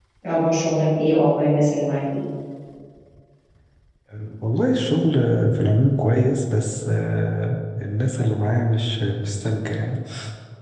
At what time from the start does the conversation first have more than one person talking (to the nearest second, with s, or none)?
none